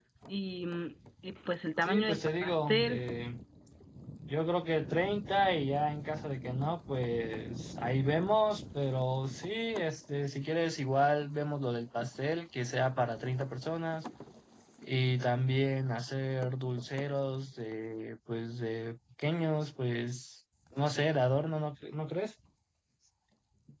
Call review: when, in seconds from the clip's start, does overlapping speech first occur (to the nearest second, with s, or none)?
2 s